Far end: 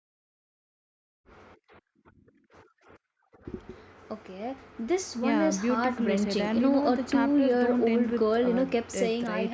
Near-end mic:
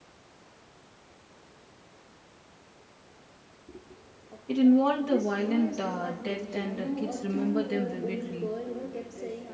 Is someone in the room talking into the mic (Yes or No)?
Yes